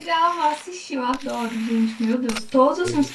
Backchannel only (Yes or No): Yes